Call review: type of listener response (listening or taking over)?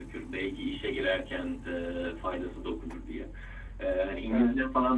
listening